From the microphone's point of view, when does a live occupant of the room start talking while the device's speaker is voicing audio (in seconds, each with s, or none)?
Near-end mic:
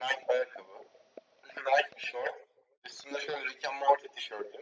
none